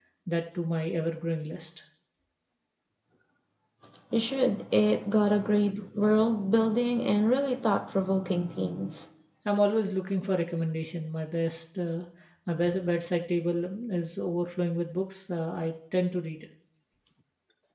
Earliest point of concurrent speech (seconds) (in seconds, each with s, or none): none